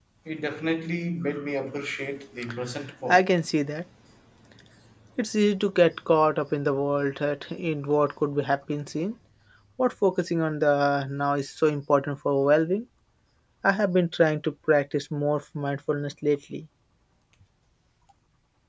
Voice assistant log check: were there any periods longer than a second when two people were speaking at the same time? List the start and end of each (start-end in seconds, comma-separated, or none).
none